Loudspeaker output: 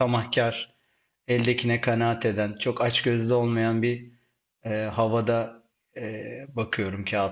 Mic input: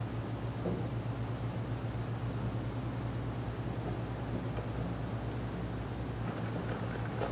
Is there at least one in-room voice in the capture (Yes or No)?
No